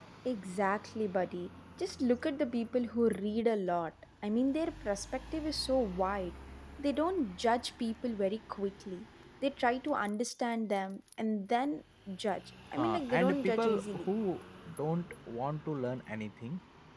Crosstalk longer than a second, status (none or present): present